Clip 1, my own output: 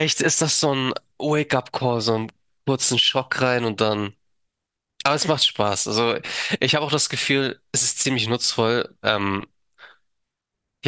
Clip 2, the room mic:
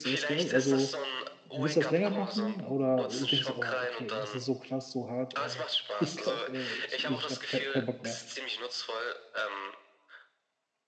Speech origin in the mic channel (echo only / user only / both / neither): both